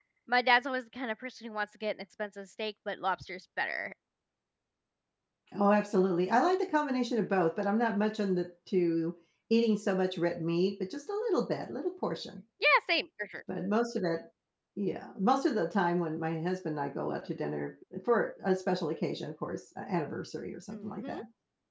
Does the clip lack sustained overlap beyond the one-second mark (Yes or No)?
Yes